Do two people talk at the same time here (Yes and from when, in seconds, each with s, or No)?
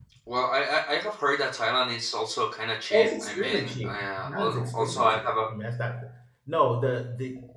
Yes, from 2.9 s